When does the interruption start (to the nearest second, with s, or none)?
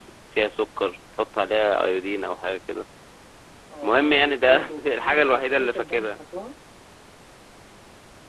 4 s